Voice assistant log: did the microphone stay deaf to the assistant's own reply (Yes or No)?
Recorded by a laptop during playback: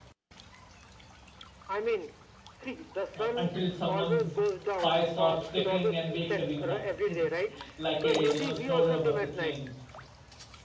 No